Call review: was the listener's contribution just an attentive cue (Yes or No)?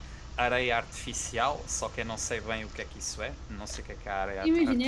No